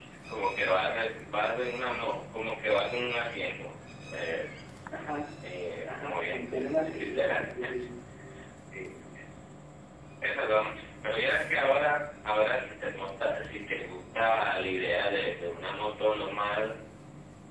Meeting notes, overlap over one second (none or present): present